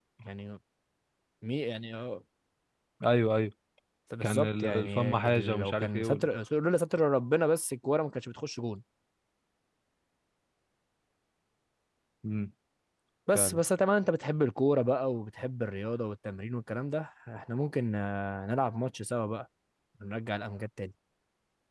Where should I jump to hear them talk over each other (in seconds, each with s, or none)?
4.2 s